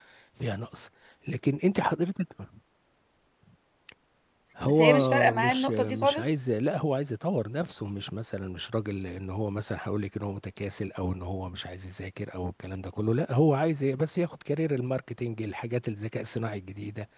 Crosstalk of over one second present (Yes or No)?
Yes